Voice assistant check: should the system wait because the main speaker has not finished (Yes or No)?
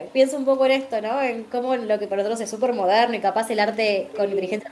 Yes